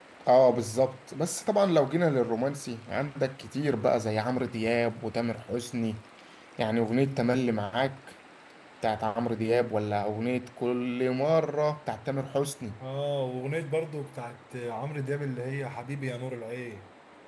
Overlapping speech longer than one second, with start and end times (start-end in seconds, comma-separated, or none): none